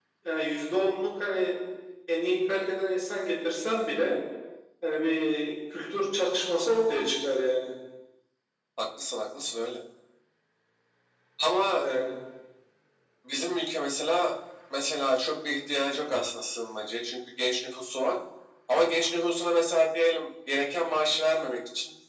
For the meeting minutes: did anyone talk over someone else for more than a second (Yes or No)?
No